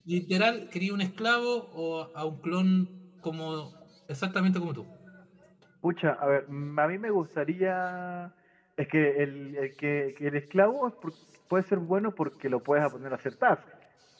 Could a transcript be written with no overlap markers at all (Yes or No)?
Yes